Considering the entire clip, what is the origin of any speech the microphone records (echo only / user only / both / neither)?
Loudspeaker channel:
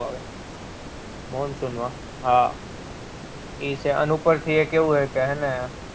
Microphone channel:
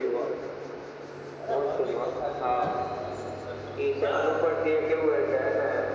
both